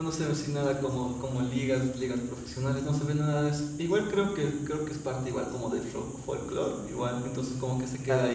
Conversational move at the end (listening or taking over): taking over